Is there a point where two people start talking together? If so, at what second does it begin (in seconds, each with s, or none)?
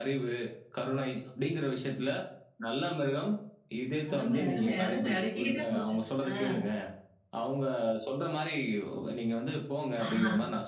4.1 s